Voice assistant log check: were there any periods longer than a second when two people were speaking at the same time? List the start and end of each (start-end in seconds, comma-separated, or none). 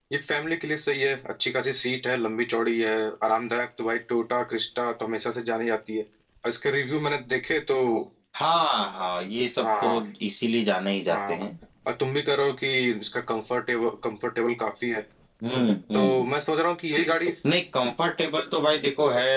none